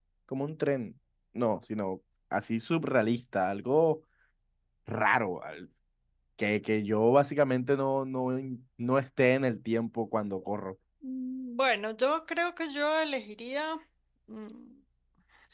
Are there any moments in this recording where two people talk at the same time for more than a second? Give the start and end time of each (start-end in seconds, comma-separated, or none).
none